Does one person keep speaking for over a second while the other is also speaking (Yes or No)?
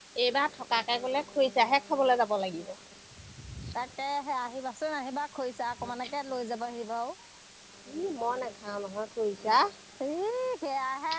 No